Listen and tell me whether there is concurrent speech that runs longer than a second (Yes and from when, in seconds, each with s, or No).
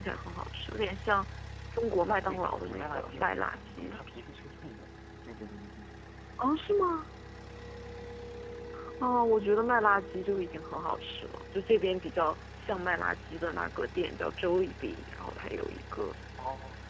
Yes, from 2.1 s